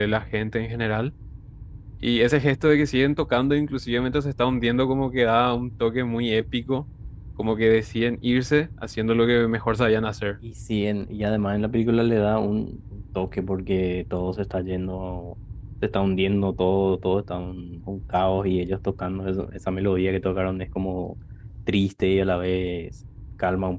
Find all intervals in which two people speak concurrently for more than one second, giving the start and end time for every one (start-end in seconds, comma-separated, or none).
none